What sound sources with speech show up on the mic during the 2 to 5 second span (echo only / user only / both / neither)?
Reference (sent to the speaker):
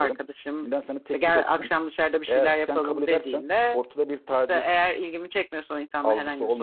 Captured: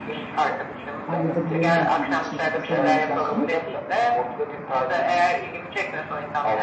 both